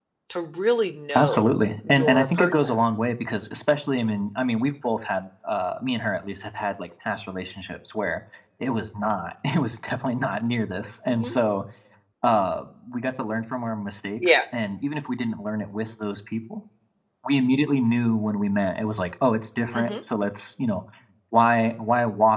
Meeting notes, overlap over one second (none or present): present